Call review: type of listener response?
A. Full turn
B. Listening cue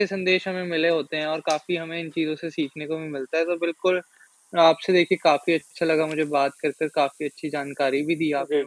B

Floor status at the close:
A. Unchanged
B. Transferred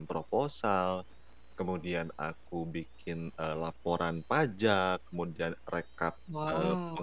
A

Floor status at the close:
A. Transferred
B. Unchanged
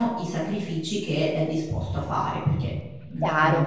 A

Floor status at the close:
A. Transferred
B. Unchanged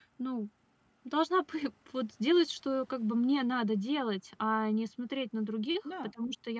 B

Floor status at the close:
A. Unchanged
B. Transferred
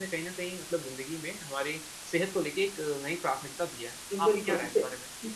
B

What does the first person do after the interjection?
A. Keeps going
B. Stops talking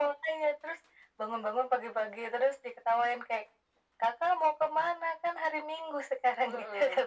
B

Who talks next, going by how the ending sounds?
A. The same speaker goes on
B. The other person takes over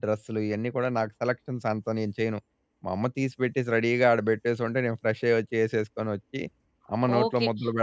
B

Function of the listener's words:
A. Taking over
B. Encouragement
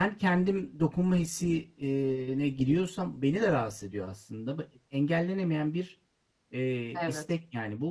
B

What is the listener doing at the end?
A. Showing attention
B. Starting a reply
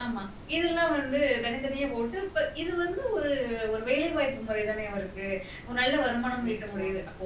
A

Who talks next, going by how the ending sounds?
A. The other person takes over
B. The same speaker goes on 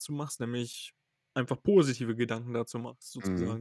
A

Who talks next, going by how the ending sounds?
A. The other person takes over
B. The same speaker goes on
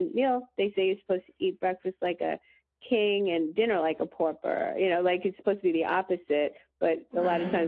B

